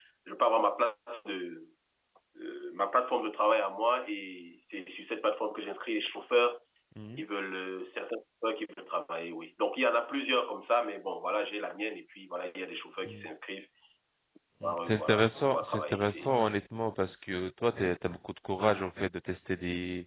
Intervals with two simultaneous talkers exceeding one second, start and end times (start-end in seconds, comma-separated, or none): 14.6-16.3